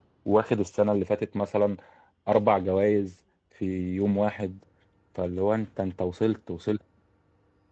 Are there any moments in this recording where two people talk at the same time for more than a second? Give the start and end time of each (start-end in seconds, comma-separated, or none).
none